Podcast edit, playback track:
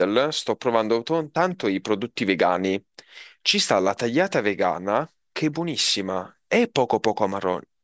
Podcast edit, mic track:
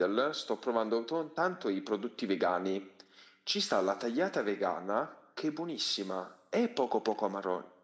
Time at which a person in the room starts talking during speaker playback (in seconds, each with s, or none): none